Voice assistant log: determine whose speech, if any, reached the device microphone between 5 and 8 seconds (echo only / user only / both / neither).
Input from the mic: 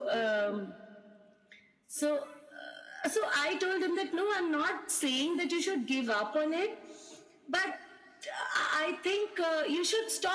echo only